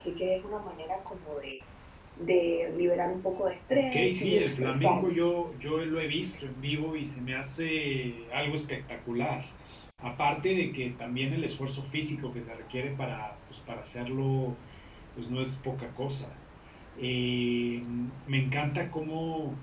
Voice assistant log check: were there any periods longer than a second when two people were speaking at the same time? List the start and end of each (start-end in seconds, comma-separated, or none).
3.7-5.1